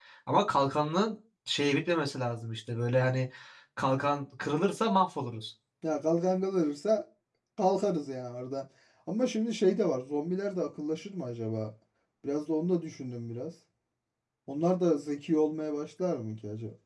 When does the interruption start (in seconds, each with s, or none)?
none